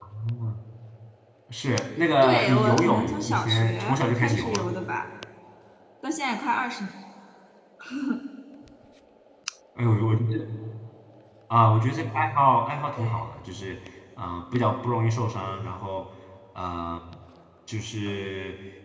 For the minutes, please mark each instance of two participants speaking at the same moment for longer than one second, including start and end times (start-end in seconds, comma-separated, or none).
2.2-4.7